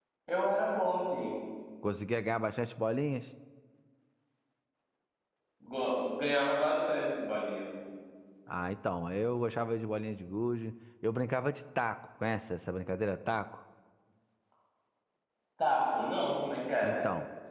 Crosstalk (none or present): none